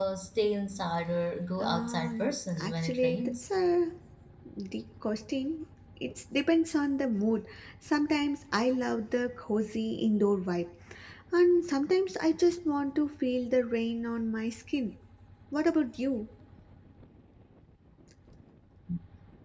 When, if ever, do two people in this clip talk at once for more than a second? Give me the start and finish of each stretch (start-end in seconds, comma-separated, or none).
1.6-3.4